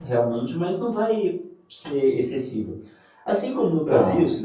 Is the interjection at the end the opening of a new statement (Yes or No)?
No